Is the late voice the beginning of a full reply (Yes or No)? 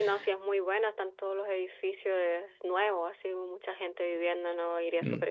Yes